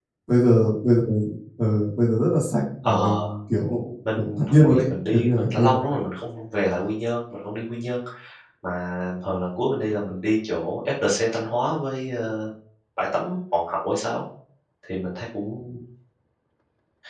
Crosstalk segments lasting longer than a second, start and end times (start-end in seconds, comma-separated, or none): 4.2-5.8